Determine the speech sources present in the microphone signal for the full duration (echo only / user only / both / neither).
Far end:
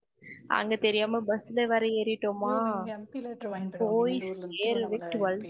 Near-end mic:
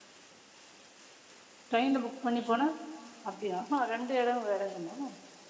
user only